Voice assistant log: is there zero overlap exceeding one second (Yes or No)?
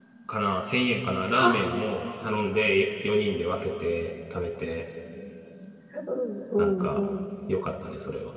Yes